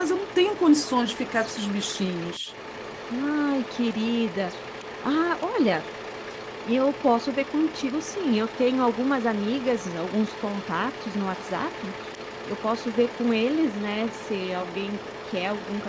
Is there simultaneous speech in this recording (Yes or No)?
No